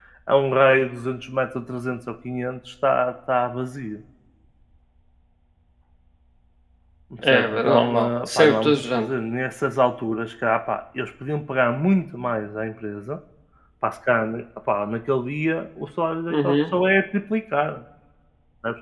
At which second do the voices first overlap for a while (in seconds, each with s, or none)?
7.3 s